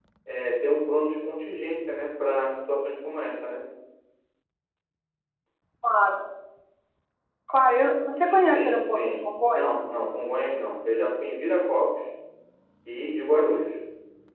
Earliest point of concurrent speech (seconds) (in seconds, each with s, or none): 8.2 s